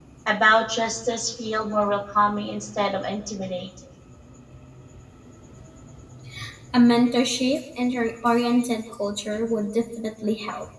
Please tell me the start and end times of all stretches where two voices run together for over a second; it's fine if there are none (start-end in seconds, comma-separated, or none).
none